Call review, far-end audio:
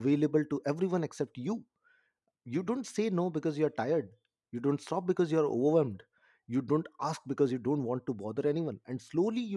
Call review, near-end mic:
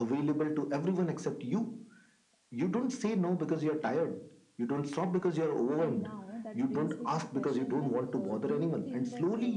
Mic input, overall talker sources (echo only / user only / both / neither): both